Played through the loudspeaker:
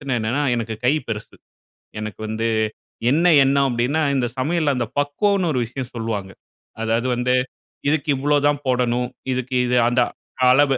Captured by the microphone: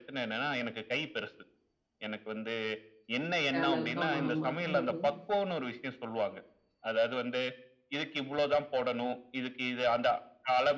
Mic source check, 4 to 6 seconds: both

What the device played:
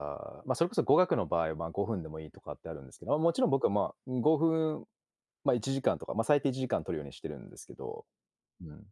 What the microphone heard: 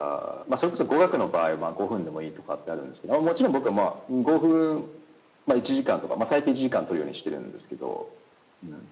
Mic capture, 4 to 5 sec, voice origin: echo only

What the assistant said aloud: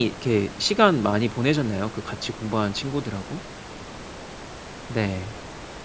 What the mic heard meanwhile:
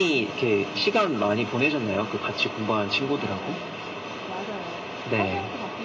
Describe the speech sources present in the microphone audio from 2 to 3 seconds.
echo only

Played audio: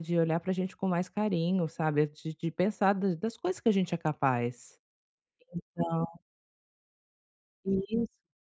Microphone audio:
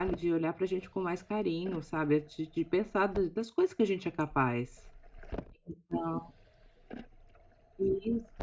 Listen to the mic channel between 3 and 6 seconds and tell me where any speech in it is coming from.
echo only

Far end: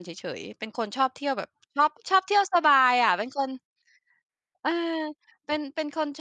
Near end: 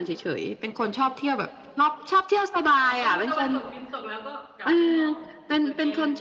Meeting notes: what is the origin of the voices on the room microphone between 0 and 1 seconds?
echo only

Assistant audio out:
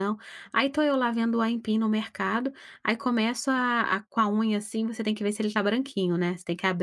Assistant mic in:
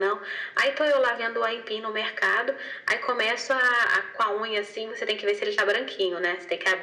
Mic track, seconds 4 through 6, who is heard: echo only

